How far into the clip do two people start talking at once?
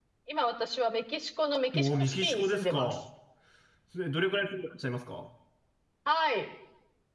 1.7 s

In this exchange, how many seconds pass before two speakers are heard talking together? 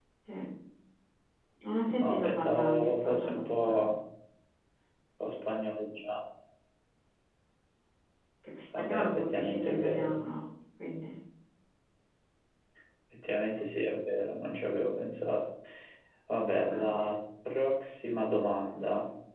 1.8 s

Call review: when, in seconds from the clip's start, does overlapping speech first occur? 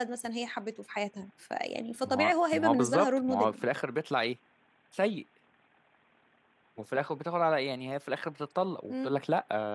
2.0 s

